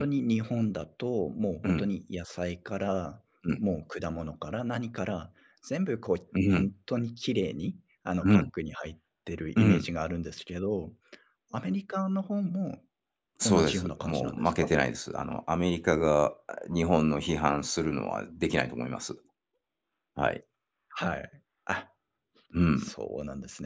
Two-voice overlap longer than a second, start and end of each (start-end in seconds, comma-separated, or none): 13.4-14.7